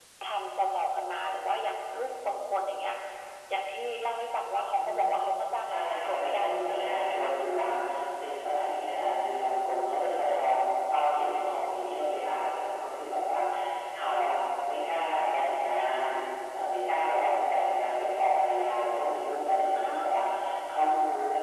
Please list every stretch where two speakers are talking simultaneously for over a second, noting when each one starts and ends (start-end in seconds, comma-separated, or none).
5.7-7.3